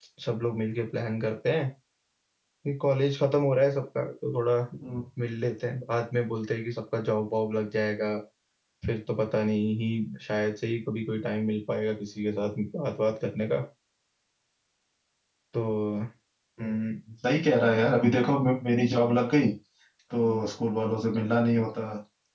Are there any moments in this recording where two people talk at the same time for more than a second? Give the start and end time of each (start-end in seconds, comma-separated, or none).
none